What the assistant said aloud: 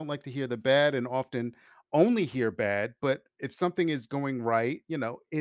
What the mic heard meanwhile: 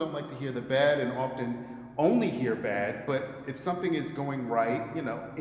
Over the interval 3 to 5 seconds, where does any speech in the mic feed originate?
echo only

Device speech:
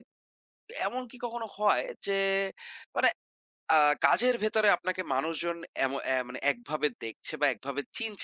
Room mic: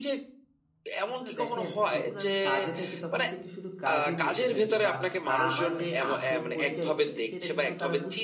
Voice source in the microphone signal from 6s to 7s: both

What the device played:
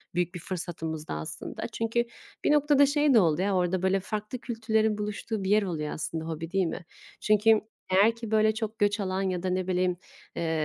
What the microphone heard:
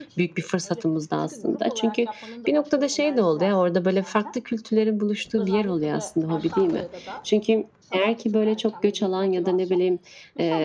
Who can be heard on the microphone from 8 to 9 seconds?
both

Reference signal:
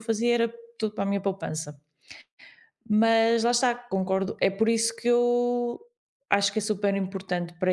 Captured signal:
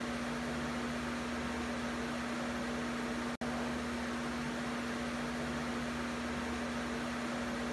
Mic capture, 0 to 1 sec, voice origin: neither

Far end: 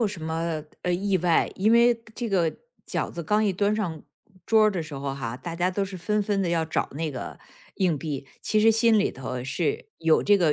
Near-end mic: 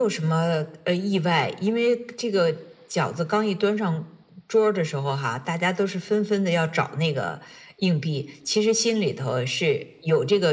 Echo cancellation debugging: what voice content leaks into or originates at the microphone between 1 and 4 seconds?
echo only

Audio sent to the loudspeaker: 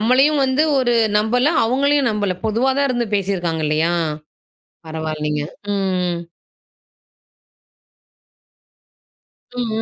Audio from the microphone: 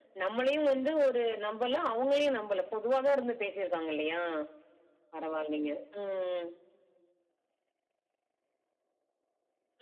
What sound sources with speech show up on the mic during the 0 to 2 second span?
echo only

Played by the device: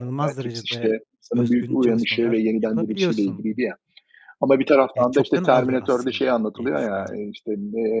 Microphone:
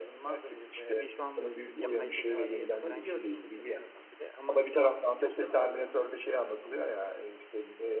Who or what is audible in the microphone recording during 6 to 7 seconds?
echo only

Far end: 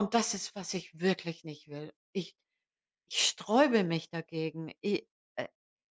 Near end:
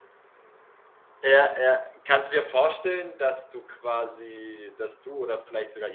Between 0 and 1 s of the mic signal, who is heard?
neither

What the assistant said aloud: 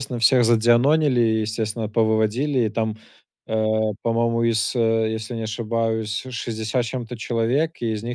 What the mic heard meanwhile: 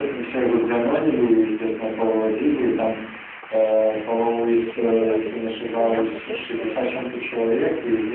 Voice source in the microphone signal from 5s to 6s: both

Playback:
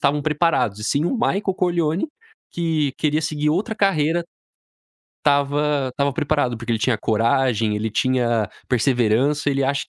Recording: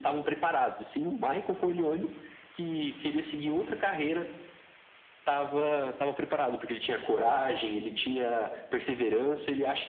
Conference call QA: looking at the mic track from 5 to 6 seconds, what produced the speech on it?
both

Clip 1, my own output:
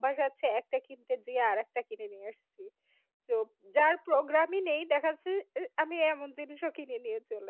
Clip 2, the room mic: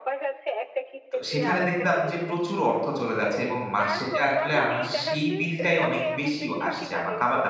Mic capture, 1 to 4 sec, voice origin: both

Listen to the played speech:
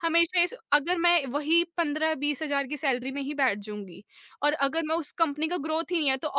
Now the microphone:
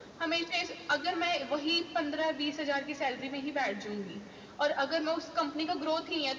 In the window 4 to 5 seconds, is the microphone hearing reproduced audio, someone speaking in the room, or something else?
echo only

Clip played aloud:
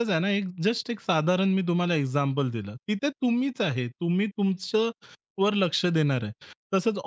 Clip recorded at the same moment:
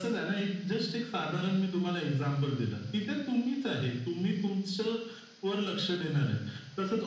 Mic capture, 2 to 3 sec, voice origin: echo only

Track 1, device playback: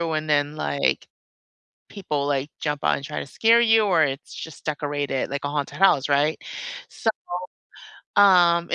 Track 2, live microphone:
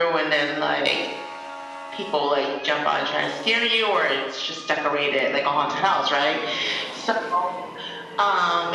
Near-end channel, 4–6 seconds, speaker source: echo only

